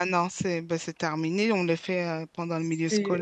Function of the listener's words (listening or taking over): taking over